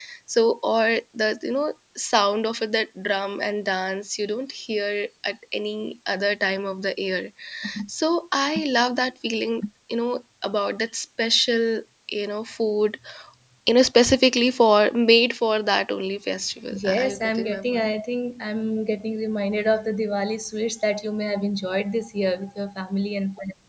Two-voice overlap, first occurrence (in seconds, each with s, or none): 16.7 s